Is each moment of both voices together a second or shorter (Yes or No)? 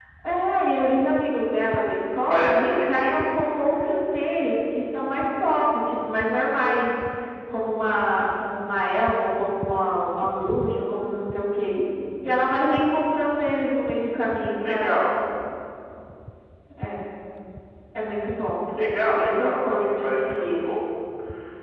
No